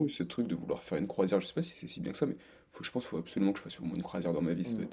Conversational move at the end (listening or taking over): taking over